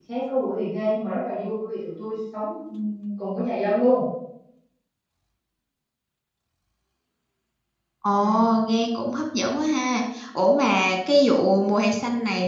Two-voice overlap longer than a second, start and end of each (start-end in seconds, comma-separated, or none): none